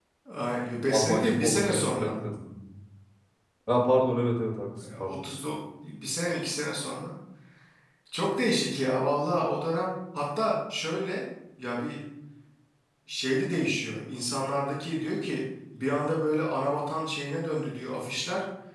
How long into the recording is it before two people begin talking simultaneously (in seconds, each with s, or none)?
0.9 s